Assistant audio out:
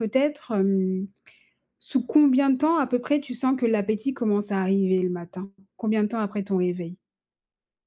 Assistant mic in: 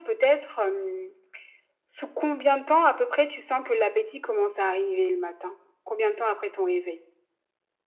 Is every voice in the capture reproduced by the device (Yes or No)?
Yes